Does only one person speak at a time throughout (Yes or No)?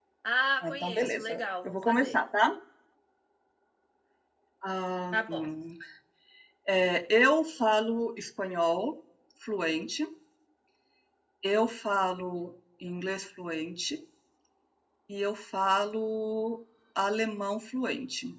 No